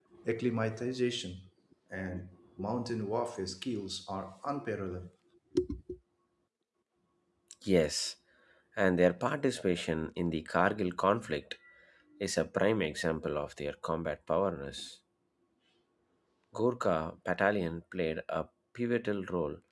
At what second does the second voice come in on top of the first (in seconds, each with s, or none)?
none